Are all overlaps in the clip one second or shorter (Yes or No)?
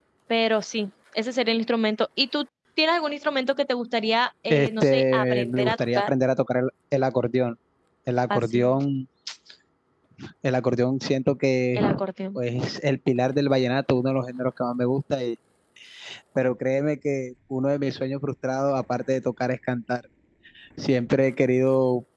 No